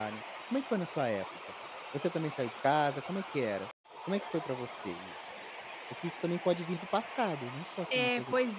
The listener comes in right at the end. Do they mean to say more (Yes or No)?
Yes